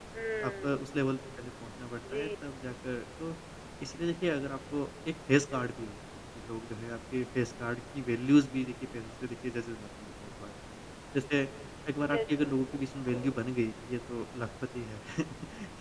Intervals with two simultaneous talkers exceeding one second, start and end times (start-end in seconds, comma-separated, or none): 12.1-13.3